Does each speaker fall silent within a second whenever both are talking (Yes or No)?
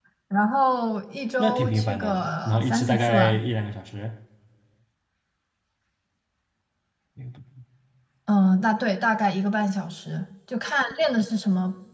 No